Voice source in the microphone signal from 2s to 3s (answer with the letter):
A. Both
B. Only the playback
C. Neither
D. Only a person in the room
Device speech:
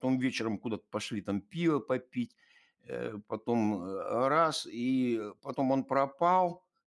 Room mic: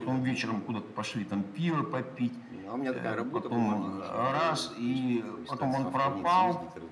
A